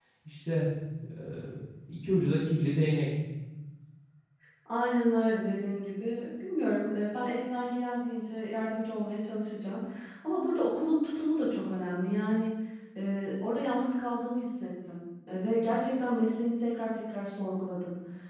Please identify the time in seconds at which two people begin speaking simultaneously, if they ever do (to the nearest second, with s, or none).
none